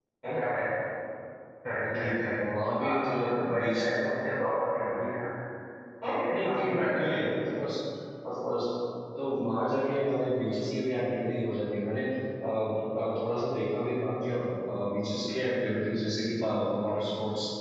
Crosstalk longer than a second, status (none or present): present